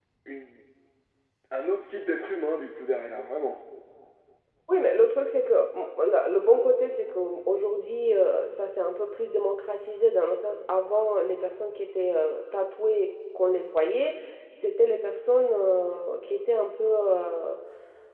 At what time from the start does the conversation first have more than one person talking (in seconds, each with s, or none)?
none